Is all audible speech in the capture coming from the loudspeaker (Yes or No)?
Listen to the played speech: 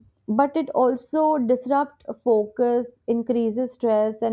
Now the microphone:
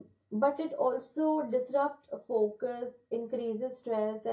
Yes